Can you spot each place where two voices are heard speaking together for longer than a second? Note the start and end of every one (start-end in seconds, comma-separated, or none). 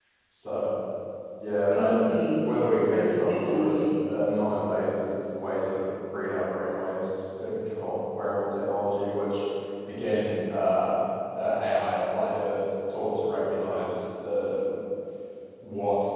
1.7-3.8